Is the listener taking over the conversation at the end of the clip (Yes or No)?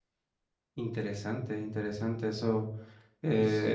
No